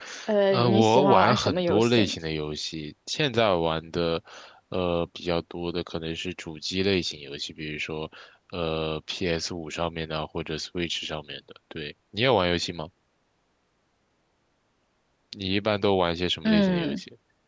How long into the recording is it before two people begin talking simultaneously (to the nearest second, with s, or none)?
1 s